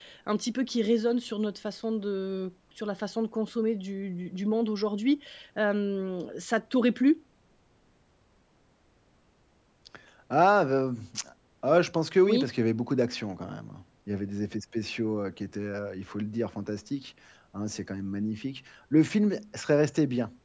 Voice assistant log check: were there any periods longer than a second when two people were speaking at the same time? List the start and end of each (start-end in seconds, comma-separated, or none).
none